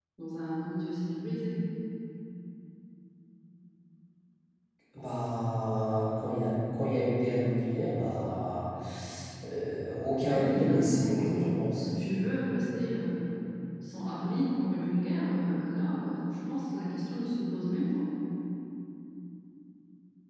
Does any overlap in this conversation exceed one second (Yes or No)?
Yes